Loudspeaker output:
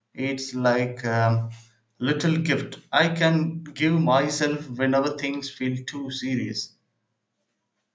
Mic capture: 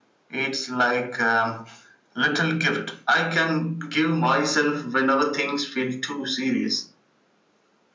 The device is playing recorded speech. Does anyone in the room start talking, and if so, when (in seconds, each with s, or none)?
none